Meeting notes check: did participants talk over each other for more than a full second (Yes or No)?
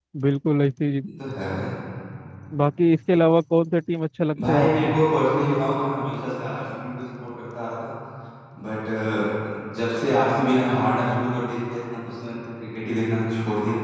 No